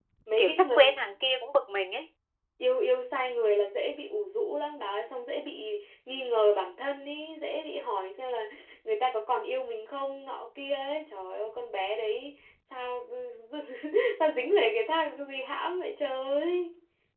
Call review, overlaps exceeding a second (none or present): none